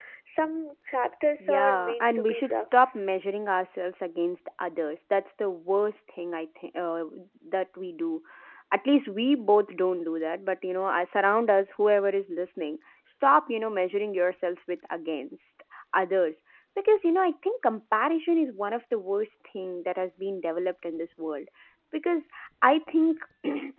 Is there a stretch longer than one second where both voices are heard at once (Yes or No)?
Yes